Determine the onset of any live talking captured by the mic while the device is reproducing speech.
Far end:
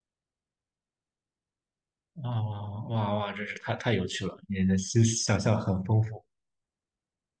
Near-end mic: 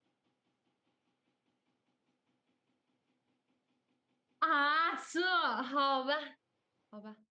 4 s

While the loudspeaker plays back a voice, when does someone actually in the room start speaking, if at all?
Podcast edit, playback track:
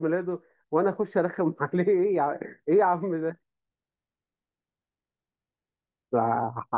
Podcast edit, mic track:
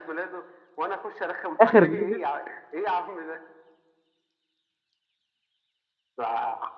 2 s

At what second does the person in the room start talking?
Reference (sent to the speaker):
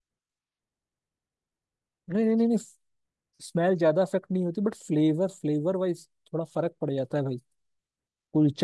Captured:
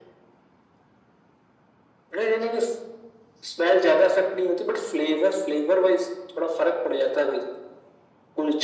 none

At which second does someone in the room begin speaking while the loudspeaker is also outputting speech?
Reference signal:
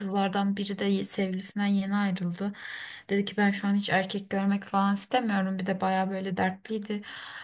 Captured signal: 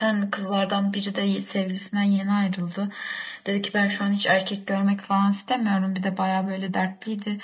none

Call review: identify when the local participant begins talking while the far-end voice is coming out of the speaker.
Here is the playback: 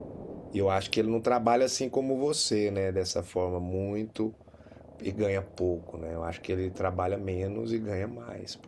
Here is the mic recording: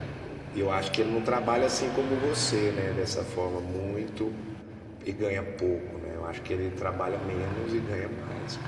none

